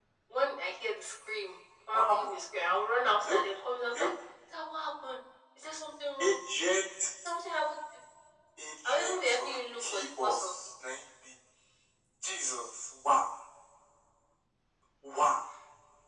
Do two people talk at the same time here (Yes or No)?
Yes